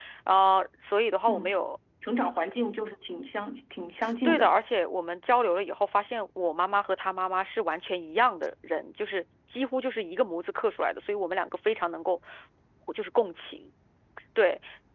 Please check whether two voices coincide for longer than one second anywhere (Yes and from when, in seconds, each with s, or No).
No